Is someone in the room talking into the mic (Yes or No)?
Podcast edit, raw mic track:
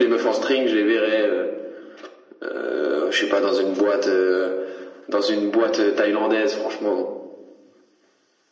No